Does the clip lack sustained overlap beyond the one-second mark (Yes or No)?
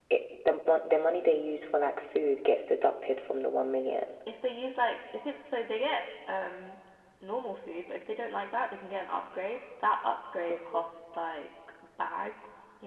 Yes